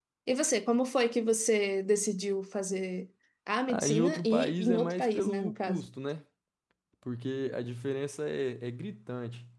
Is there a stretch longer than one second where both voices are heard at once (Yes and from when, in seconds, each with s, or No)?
Yes, from 3.7 s